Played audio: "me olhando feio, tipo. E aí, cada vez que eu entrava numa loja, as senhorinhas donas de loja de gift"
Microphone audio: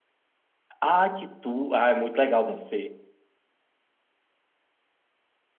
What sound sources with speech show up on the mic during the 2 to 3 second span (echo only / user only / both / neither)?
user only